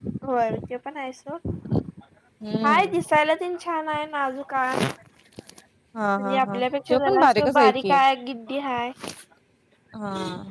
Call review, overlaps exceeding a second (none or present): present